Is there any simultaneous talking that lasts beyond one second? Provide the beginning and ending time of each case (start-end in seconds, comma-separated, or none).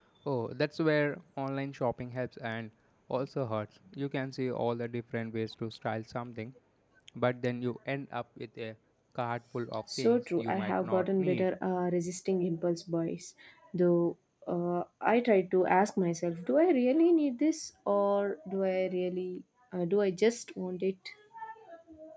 10.0-11.4